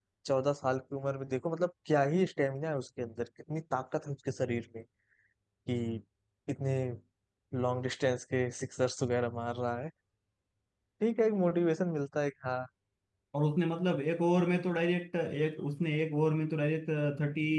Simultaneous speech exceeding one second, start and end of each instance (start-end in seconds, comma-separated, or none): none